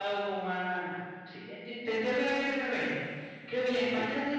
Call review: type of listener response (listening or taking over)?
listening